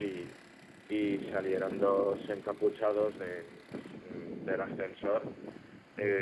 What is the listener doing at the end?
taking over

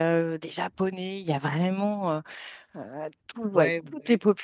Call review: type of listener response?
listening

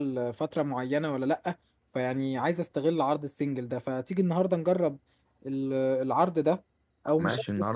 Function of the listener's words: listening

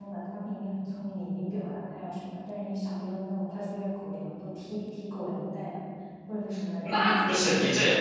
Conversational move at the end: taking over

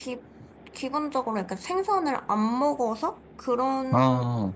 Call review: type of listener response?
listening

